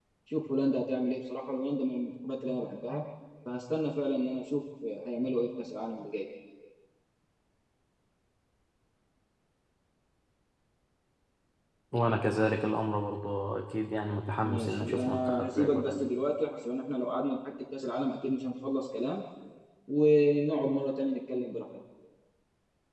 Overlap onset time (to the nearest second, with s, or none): 14 s